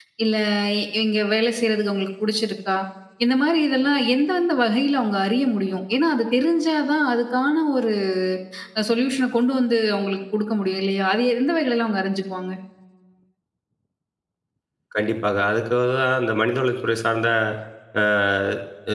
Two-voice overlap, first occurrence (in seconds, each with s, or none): none